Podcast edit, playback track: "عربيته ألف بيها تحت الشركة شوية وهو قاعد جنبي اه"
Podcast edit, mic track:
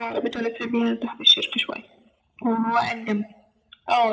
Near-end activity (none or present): none